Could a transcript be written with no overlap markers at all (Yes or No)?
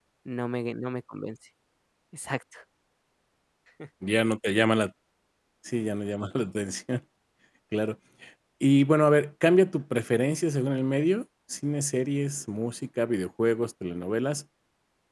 Yes